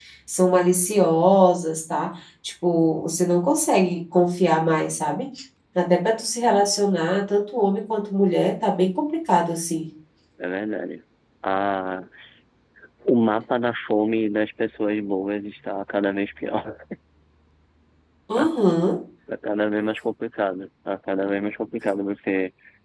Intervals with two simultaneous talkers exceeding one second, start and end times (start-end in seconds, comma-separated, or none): none